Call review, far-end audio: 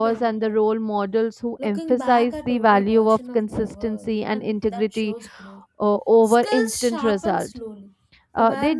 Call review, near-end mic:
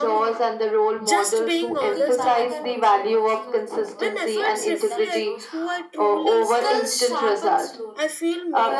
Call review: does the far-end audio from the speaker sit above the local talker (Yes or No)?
Yes